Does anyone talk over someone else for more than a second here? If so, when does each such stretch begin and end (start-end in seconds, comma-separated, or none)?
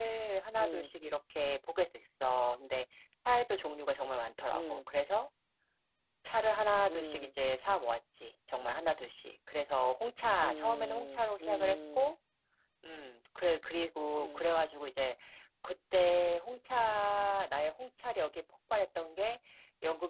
10.4-12.1